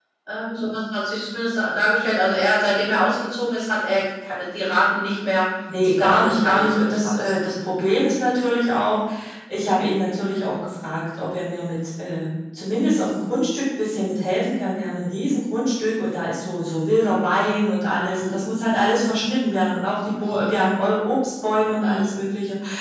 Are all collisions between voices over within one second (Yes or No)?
No